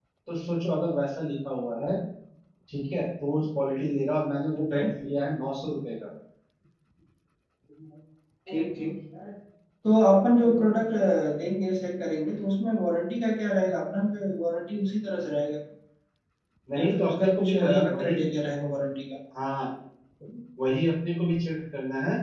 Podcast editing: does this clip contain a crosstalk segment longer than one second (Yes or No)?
Yes